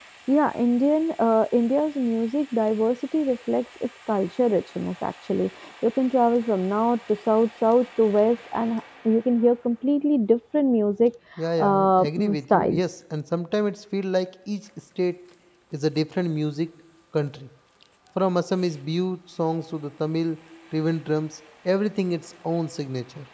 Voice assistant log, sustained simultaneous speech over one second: present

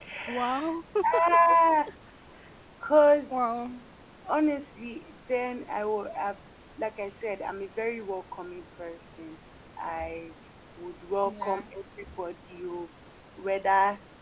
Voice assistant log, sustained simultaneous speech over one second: none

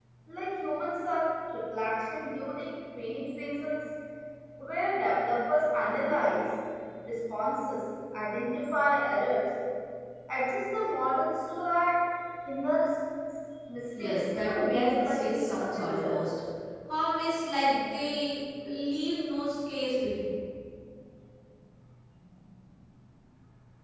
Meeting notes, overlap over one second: present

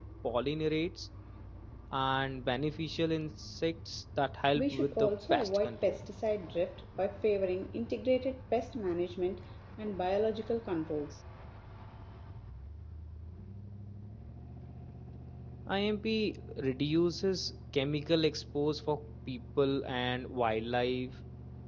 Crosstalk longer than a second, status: present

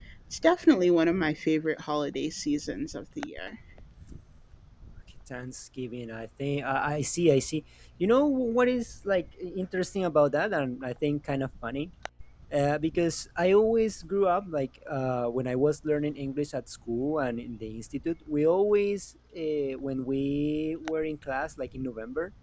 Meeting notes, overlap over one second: none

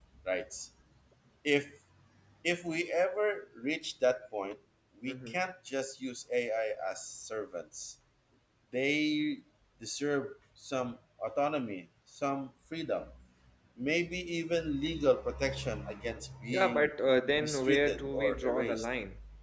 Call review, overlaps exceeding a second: present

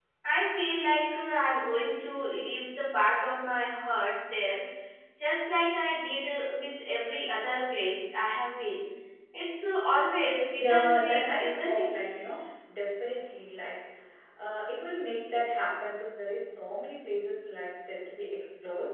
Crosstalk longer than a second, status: present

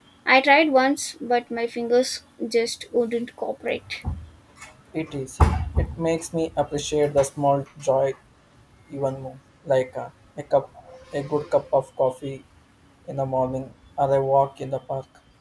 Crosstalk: none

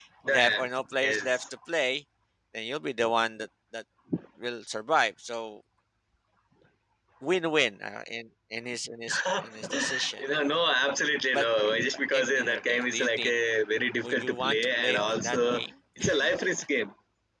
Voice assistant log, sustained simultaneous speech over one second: present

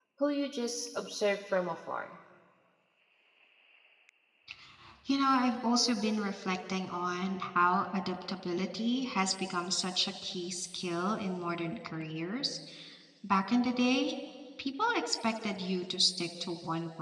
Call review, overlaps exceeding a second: none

